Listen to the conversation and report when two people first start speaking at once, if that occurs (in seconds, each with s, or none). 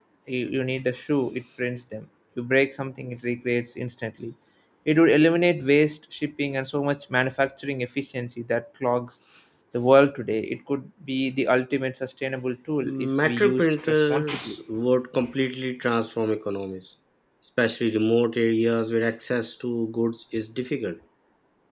12.8 s